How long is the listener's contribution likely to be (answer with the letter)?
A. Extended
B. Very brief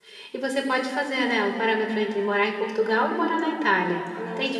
A